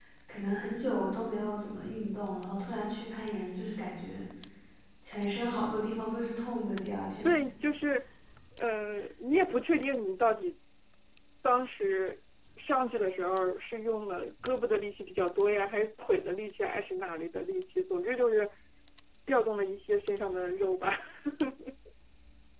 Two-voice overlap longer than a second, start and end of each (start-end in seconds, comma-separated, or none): none